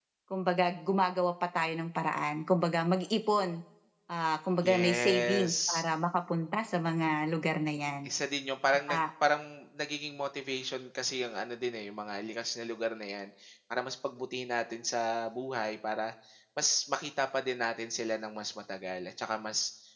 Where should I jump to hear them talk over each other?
5 s

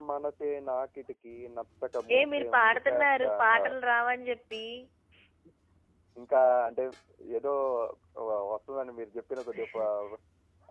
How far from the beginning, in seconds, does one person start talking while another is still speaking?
2 s

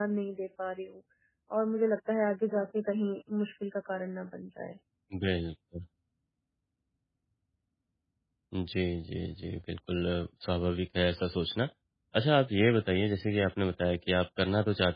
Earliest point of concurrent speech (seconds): none

